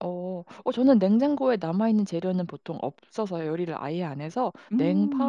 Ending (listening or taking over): listening